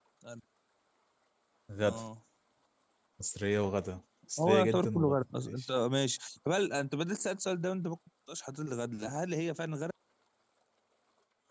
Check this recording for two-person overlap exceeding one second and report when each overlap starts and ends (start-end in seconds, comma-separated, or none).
4.4-5.7